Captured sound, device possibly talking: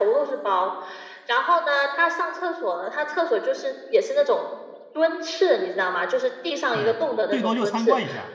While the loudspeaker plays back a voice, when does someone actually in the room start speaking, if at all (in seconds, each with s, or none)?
6.7 s